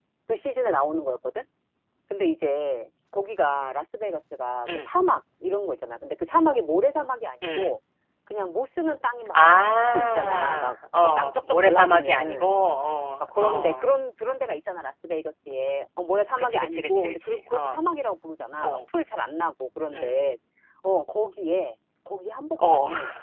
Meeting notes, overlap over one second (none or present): present